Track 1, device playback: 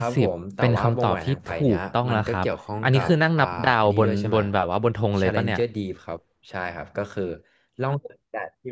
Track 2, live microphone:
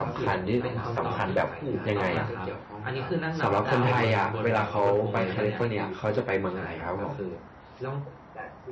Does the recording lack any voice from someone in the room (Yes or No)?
No